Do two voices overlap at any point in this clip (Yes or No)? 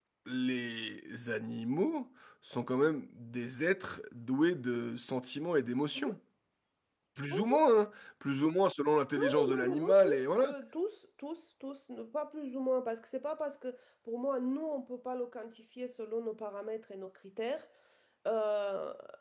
Yes